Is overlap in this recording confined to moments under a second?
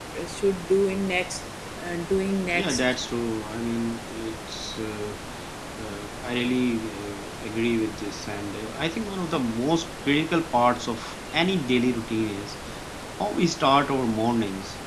Yes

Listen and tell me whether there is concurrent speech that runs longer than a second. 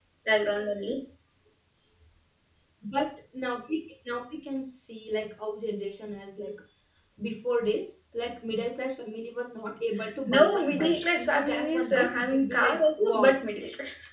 Yes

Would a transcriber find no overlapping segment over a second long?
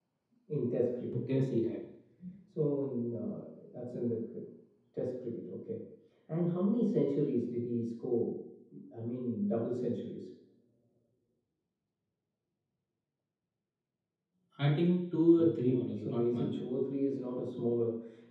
No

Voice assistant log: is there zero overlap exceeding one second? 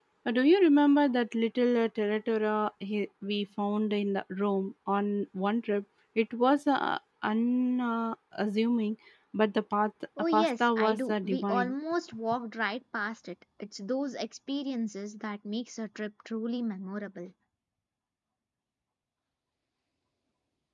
No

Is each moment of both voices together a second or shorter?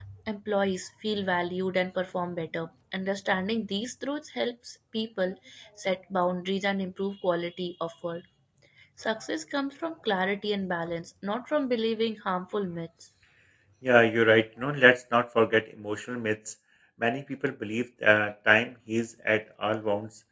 Yes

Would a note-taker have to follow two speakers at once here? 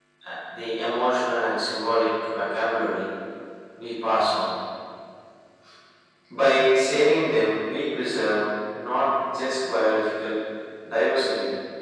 No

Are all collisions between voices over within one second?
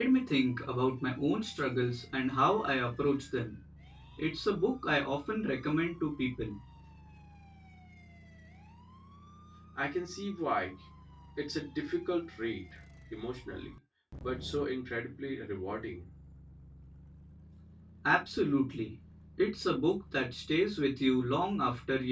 Yes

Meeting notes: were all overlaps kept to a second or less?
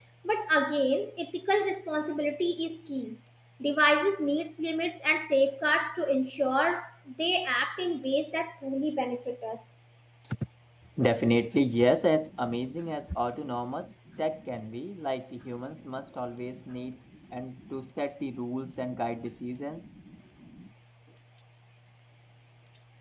Yes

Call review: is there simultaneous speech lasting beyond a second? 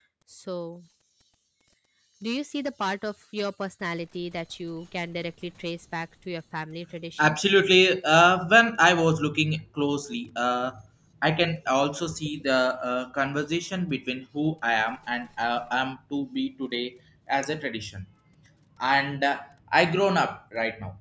No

